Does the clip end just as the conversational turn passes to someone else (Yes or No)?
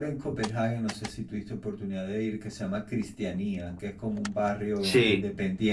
No